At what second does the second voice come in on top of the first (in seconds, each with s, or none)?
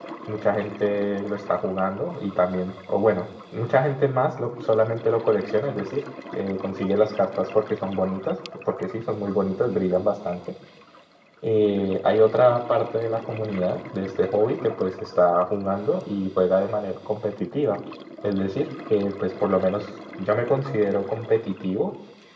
none